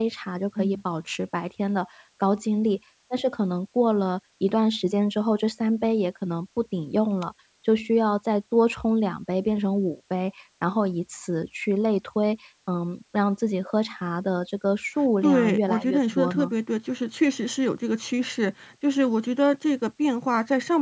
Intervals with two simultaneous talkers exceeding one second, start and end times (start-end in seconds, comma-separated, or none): 15.2-16.5